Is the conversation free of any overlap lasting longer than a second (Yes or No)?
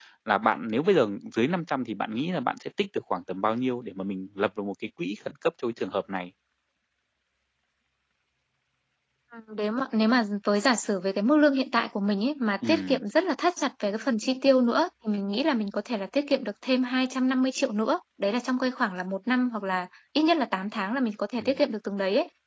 Yes